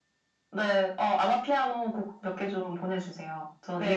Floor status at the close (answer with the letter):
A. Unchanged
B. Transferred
B